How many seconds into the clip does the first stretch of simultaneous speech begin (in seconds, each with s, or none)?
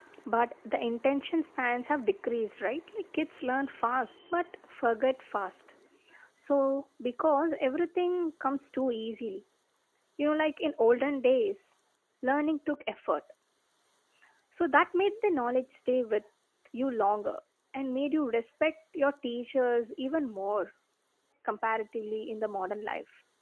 none